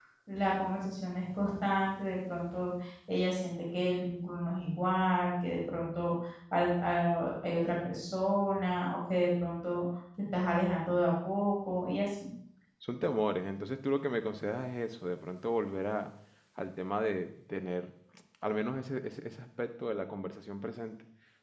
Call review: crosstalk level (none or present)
none